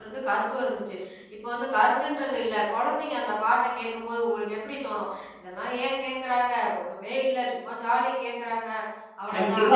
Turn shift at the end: Yes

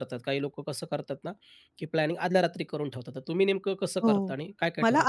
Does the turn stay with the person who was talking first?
No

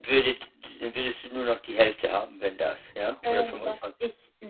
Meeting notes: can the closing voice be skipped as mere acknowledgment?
No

